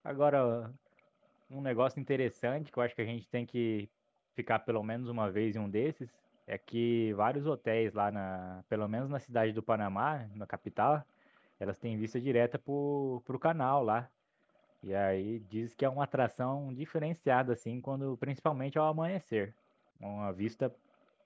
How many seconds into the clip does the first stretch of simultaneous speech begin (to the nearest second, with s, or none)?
none